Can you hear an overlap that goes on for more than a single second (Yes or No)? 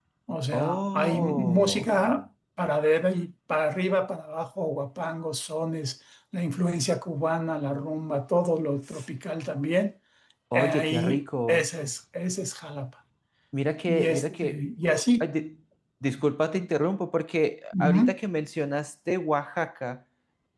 Yes